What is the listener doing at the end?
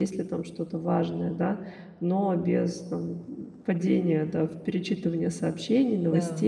listening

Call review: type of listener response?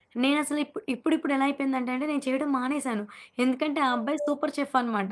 listening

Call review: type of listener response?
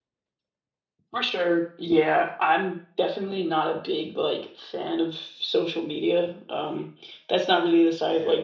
listening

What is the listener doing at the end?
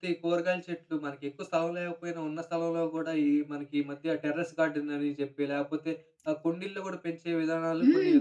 taking over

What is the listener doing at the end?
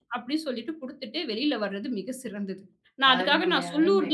listening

